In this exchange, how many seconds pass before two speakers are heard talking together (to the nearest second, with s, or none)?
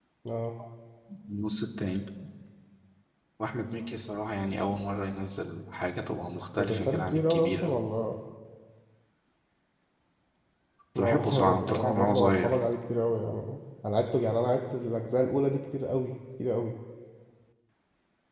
7 s